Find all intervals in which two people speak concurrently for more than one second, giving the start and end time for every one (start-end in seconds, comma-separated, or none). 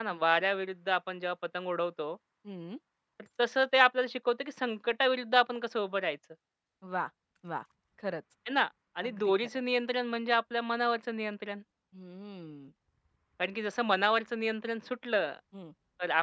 none